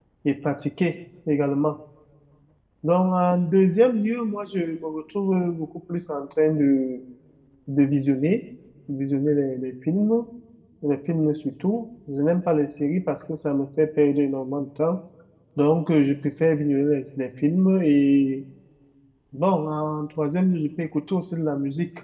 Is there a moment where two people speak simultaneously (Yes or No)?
No